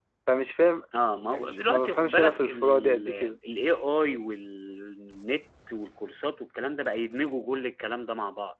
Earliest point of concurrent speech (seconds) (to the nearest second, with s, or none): 1 s